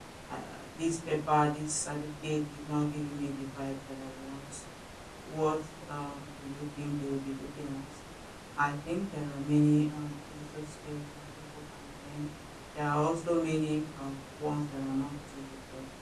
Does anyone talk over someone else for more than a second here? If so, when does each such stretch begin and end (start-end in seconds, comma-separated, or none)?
none